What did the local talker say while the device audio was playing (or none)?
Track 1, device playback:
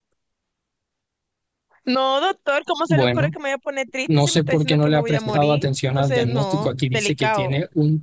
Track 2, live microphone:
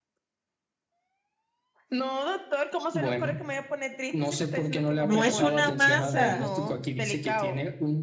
No es una masa.